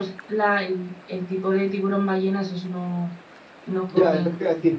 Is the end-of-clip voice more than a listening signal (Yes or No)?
Yes